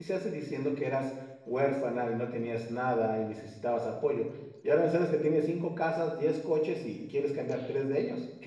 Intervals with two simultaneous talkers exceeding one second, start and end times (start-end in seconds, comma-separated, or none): none